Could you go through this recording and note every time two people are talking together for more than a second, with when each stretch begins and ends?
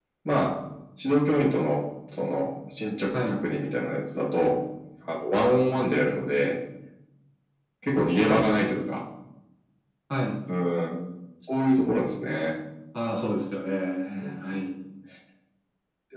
none

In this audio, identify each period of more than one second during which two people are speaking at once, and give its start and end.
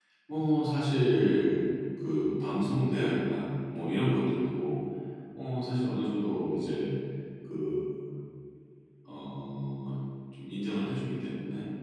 none

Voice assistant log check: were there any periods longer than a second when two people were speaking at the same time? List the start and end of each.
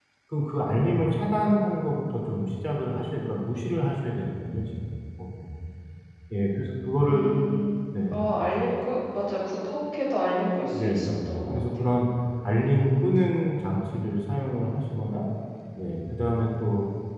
10.6-11.8

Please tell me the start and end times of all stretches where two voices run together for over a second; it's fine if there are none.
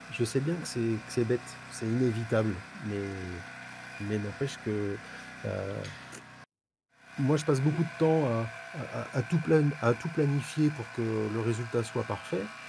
none

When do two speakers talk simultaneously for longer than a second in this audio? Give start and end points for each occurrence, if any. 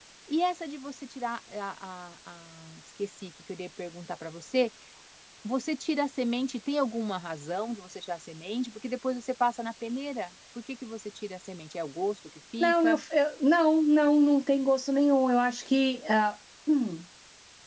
none

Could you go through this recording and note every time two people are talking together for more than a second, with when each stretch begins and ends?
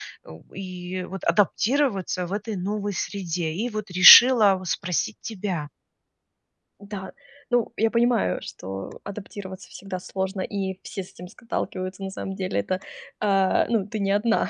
none

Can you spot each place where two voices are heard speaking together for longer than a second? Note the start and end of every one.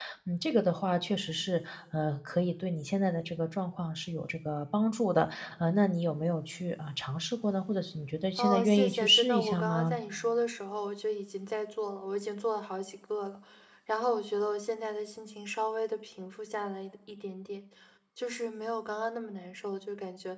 8.4-10.0

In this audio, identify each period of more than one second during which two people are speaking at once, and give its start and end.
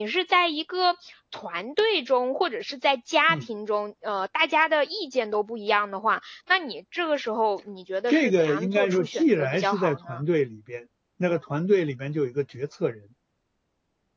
8.1-10.2

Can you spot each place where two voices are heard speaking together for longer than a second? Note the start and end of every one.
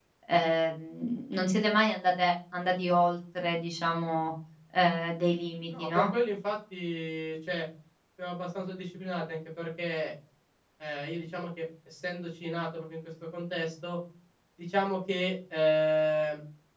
none

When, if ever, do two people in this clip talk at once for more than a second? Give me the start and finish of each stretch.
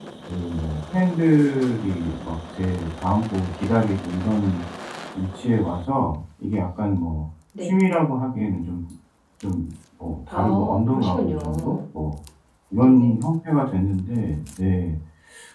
10.3-11.8

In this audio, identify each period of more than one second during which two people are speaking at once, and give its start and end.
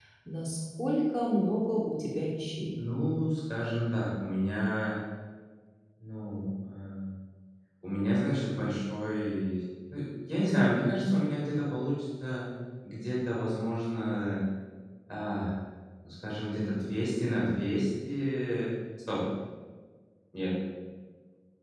none

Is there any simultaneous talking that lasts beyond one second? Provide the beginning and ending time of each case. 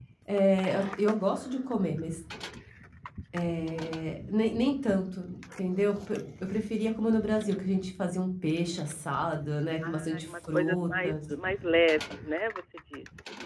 9.9-11.1

